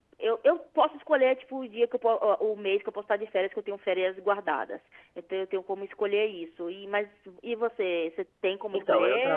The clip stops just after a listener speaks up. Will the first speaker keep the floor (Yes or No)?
No